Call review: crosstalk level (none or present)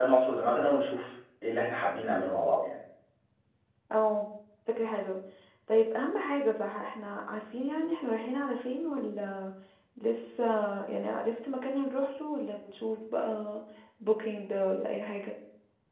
none